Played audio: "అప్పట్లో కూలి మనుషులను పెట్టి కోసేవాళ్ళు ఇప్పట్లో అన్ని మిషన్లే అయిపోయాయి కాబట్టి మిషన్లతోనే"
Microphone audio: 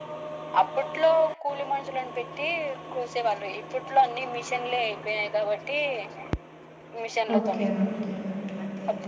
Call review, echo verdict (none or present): present